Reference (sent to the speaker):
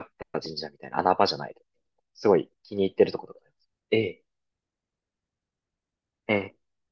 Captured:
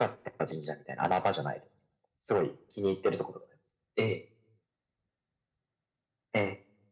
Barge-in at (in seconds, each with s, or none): none